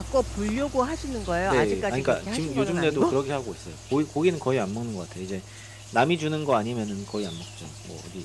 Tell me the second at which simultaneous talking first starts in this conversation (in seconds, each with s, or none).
1.4 s